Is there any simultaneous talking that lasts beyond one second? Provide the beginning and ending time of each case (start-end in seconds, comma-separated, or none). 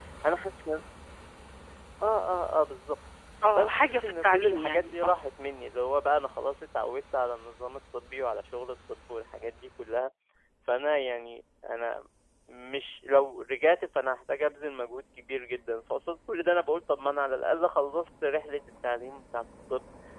3.5-5.2